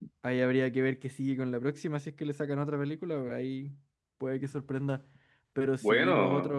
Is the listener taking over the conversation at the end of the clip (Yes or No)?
No